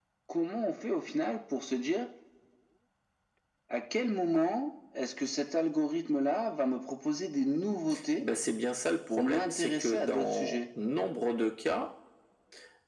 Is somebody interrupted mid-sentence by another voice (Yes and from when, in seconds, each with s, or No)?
Yes, from 9.1 s